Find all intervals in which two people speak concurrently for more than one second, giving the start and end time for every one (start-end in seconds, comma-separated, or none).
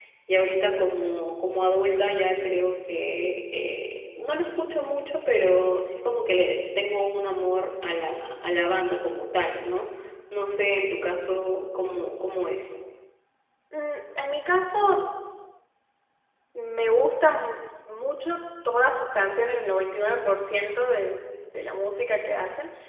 none